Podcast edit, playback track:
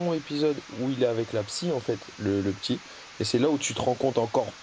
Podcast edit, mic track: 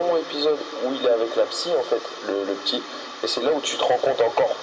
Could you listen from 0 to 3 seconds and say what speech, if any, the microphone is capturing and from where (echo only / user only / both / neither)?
echo only